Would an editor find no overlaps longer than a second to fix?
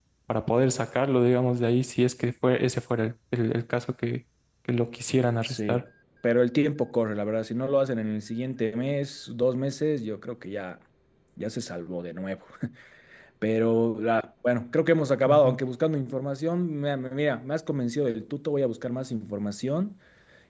Yes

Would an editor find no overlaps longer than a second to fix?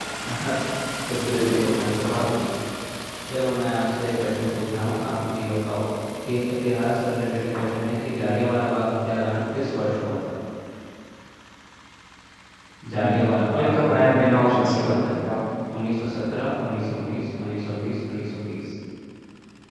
No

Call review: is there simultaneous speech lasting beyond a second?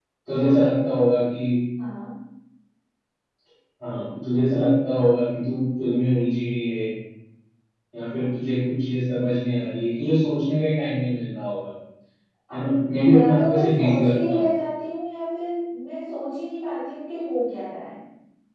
Yes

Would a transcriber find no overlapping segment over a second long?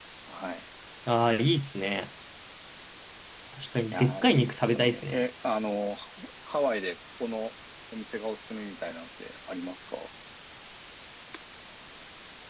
No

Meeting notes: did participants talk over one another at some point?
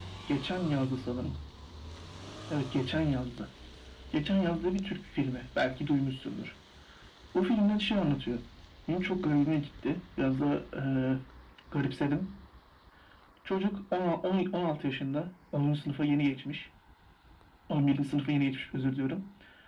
No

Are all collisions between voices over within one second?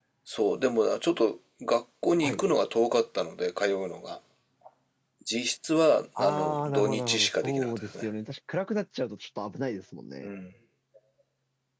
No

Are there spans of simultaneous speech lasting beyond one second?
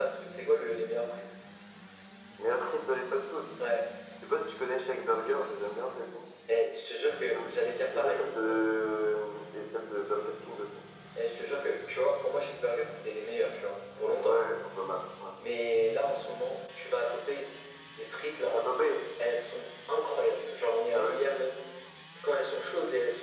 No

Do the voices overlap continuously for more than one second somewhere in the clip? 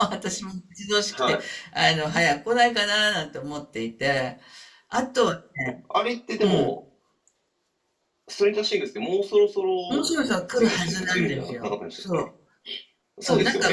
Yes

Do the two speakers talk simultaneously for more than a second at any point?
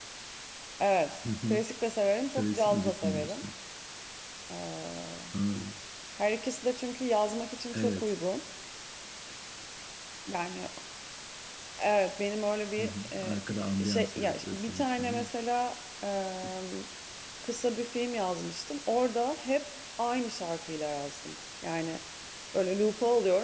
Yes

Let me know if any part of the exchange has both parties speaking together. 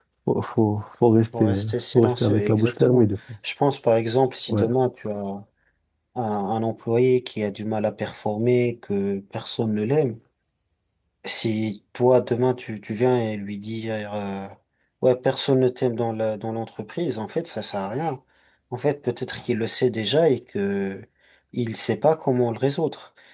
Yes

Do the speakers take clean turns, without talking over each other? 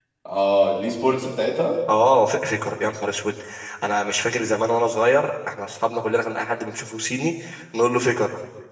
Yes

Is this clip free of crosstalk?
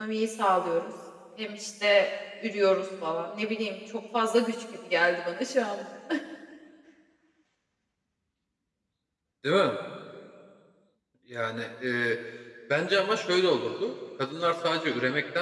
Yes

